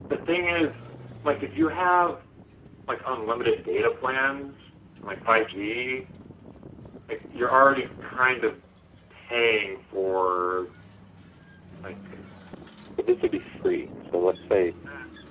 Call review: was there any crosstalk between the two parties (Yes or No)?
No